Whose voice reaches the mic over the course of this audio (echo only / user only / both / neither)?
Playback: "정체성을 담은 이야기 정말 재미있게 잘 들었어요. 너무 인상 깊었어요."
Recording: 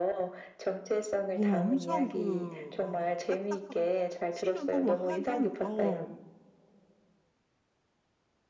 both